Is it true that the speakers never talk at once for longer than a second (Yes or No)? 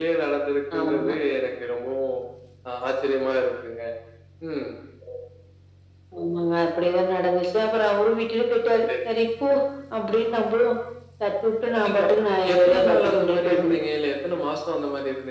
No